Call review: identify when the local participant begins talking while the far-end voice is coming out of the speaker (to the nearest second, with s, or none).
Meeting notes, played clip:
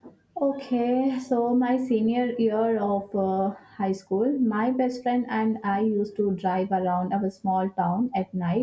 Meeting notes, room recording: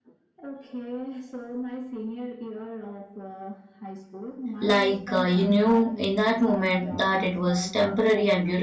5 s